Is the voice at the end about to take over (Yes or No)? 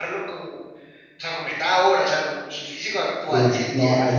Yes